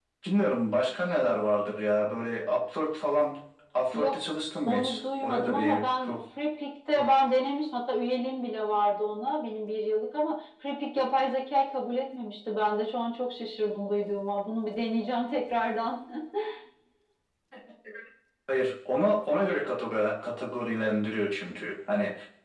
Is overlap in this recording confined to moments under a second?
No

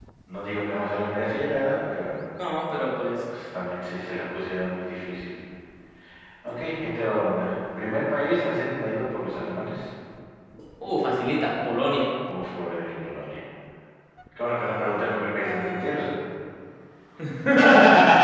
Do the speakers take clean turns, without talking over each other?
Yes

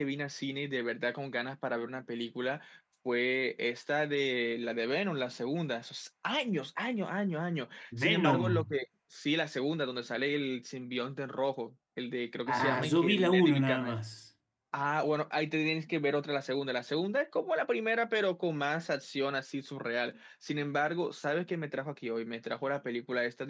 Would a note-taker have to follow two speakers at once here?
Yes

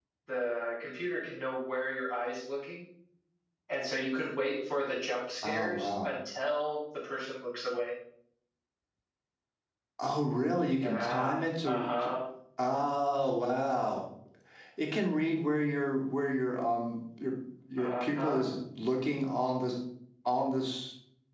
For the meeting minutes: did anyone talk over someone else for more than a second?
Yes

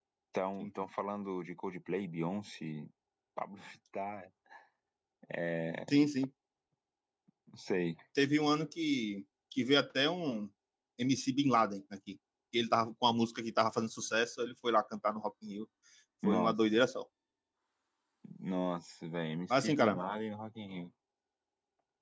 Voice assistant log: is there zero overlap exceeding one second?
Yes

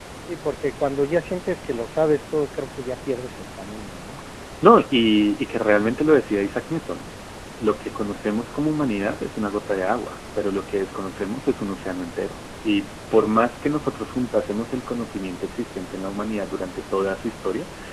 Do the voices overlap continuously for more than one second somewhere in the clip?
No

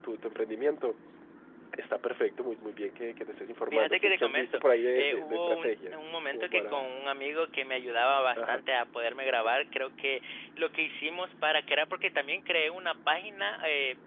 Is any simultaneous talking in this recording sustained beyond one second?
Yes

